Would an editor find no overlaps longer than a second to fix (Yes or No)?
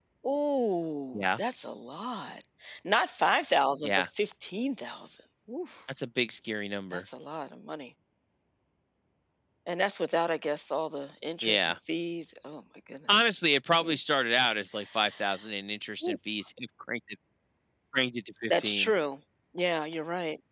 Yes